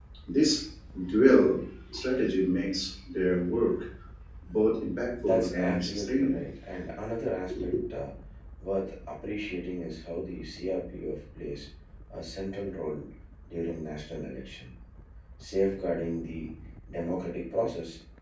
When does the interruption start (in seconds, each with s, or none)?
5.2 s